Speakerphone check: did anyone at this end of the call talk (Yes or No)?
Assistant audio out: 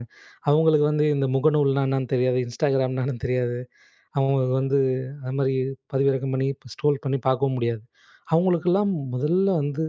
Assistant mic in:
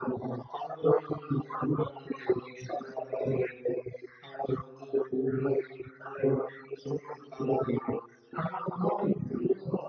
No